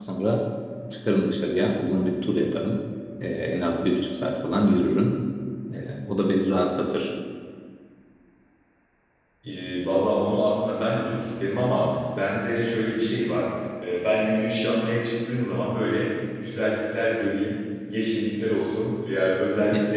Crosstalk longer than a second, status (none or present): none